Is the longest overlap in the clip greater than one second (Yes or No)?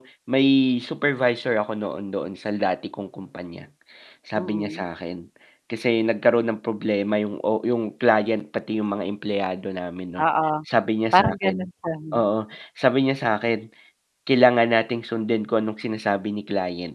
No